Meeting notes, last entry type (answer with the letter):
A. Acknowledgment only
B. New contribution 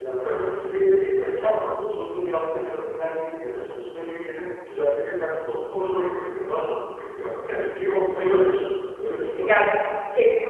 B